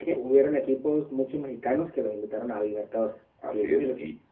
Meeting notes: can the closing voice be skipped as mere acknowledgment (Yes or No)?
No